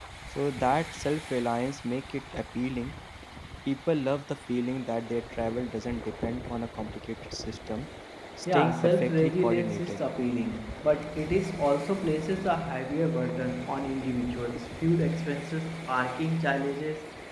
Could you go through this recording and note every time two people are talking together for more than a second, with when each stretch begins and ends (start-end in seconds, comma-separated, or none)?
8.5-10.0